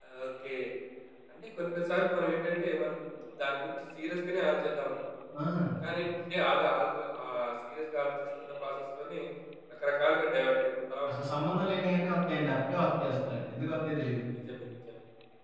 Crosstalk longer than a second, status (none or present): none